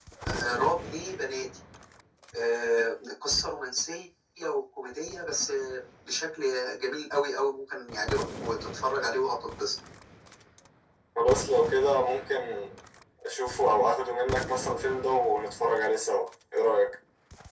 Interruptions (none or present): none